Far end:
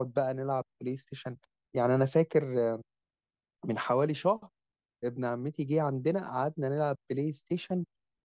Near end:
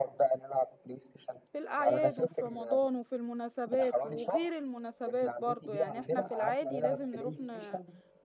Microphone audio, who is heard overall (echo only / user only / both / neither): both